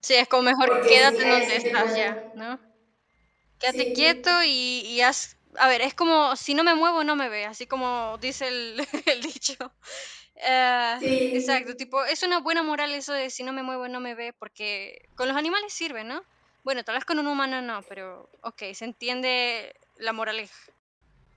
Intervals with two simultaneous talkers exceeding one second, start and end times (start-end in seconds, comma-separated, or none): 0.7-2.1